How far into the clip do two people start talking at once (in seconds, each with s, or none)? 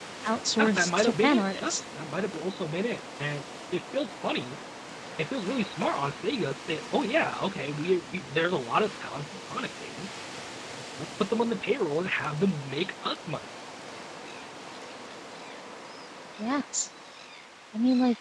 0.6 s